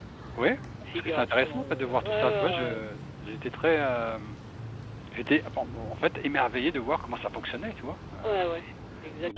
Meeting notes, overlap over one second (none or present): present